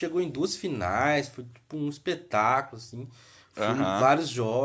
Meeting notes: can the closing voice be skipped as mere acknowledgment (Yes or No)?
Yes